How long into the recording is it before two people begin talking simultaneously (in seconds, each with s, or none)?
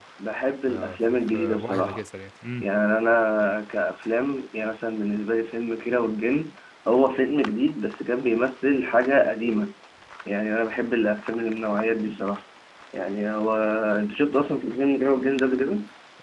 0.7 s